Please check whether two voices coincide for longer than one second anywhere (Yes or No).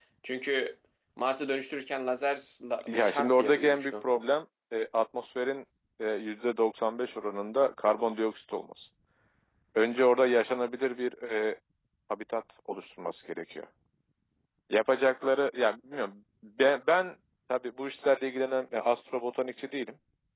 Yes